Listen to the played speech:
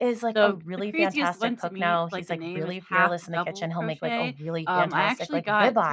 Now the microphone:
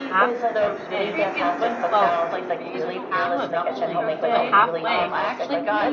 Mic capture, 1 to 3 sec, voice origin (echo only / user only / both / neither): both